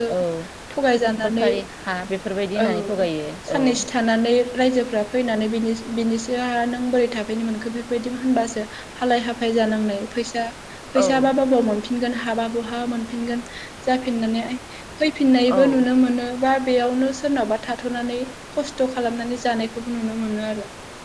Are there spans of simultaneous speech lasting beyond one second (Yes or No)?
No